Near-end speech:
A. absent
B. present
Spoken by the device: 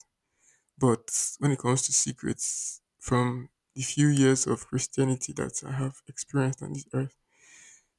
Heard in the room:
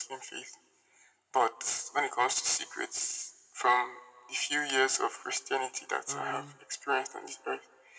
B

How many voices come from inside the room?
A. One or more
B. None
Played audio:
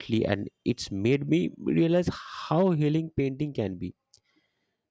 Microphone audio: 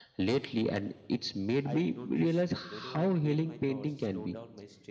A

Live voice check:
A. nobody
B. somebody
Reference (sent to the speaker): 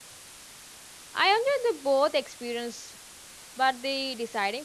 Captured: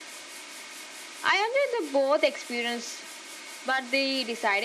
A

